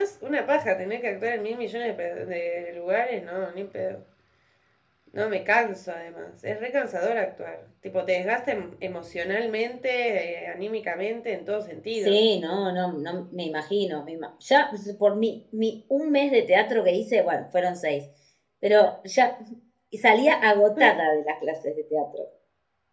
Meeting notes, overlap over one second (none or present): none